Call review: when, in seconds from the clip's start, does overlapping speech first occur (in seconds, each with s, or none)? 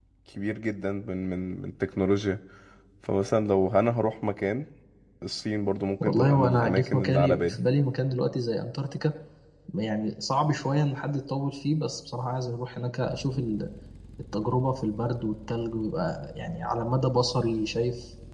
6.0 s